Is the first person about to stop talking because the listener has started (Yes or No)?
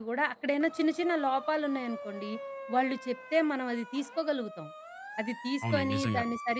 No